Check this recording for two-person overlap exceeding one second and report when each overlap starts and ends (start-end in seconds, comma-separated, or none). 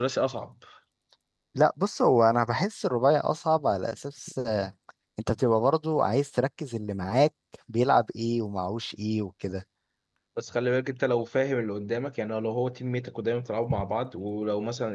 none